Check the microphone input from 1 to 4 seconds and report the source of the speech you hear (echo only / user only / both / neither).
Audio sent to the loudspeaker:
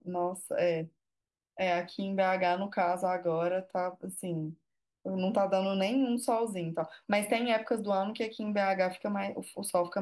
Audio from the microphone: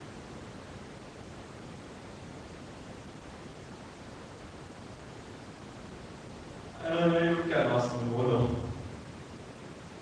neither